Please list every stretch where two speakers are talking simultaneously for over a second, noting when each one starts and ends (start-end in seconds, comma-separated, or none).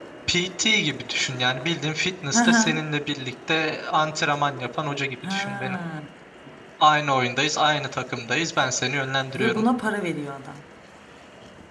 none